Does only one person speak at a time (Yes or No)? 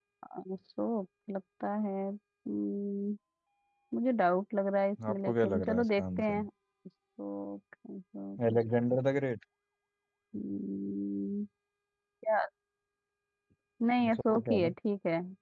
No